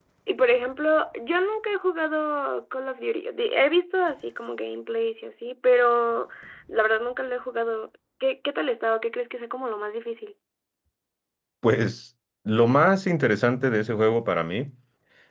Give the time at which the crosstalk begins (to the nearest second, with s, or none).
none